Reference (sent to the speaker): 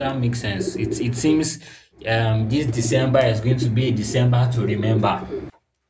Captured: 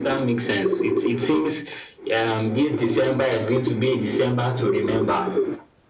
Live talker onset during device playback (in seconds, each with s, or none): none